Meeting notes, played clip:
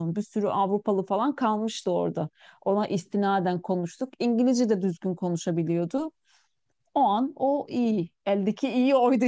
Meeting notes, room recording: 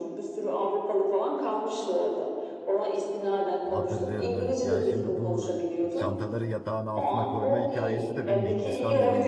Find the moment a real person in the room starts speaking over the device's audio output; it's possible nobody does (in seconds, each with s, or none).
3.7 s